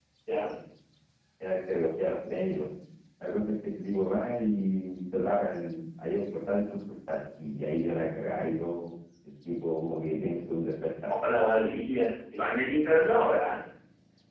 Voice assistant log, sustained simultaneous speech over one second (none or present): none